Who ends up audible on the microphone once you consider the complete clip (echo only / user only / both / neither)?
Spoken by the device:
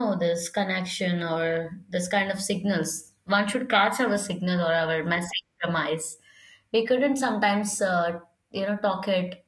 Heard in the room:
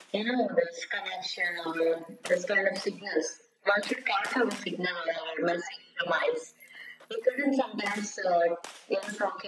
echo only